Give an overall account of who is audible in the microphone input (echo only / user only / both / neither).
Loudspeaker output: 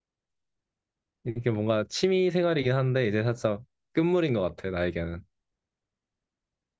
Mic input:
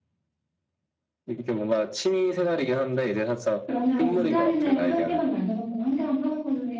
both